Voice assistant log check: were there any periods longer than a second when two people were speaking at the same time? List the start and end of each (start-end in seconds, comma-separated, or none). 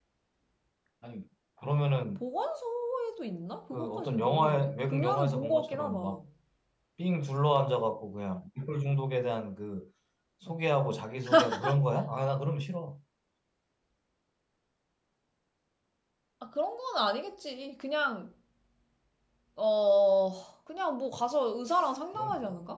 3.7-6.2